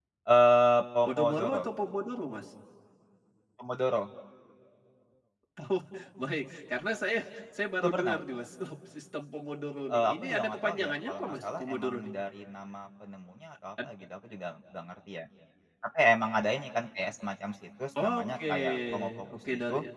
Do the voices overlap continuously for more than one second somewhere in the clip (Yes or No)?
Yes